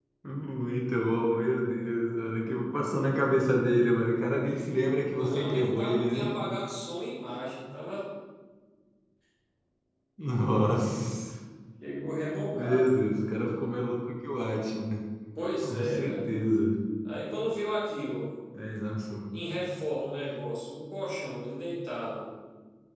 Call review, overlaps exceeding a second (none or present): present